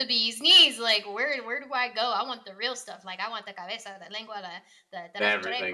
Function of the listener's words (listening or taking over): listening